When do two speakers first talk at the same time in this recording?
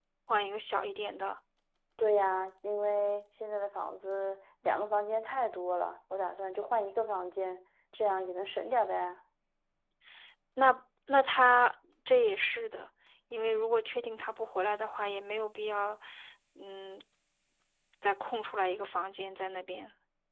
none

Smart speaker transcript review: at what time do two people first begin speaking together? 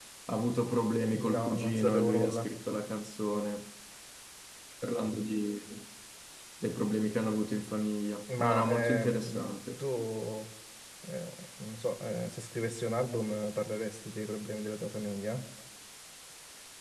1 s

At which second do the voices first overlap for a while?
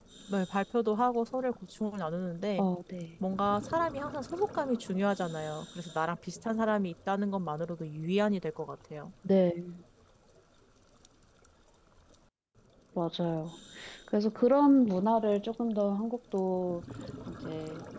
none

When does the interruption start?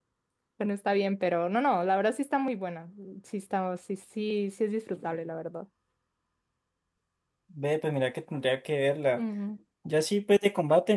none

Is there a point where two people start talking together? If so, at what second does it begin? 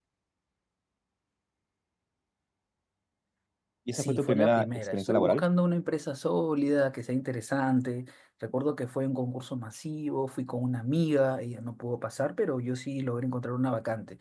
4 s

